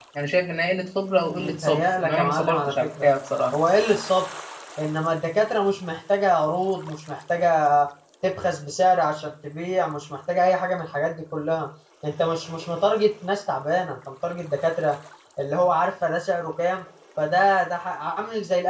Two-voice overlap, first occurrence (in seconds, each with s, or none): 1.3 s